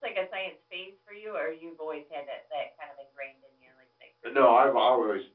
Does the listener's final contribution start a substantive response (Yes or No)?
Yes